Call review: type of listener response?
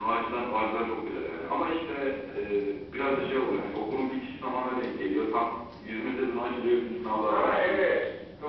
taking over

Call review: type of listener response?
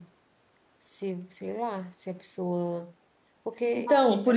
taking over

